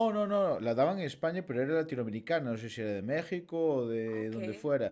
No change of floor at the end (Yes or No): Yes